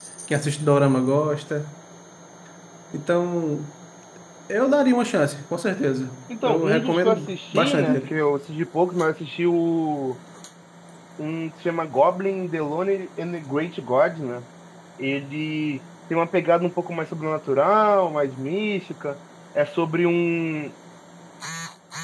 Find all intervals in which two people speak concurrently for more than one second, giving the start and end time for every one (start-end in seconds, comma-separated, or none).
6.4-8.2